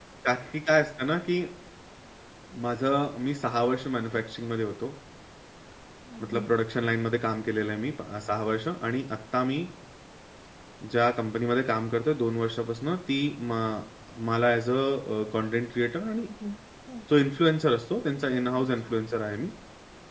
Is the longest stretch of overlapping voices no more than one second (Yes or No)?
Yes